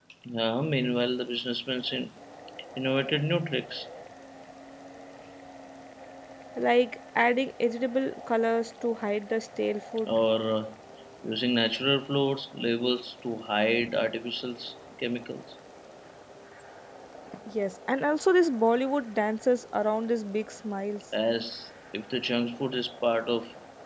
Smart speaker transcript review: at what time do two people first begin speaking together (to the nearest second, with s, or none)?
none